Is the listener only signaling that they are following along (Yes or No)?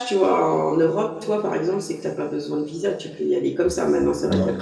Yes